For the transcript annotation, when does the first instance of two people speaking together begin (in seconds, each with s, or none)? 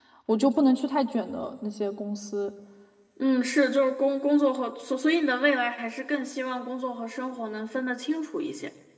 none